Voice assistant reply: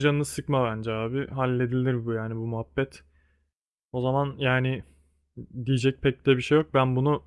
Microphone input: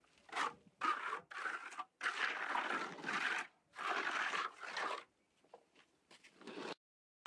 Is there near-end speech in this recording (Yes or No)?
No